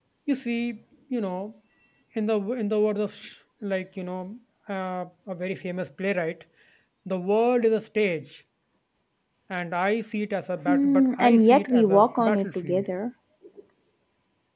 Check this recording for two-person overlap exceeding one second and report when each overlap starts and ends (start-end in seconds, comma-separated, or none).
10.7-12.9